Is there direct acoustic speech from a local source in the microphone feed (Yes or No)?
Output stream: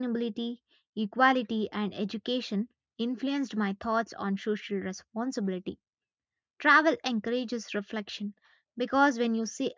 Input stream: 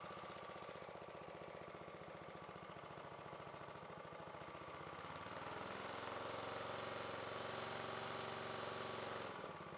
No